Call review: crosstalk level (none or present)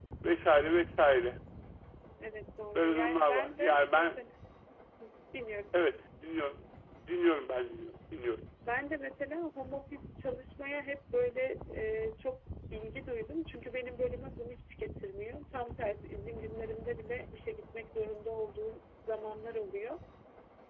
present